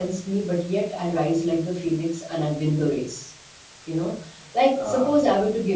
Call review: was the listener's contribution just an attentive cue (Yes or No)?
Yes